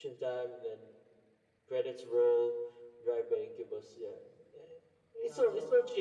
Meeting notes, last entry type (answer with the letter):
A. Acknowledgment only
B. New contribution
A